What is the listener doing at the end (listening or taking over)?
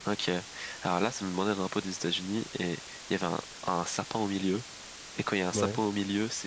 listening